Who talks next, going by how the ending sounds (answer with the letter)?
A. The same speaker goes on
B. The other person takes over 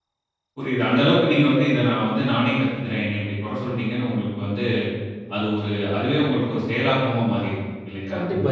B